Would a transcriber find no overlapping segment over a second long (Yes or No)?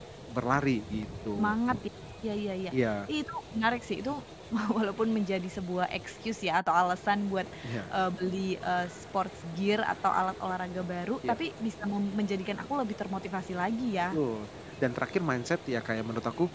Yes